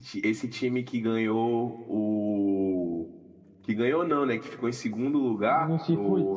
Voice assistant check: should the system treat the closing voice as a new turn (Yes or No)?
No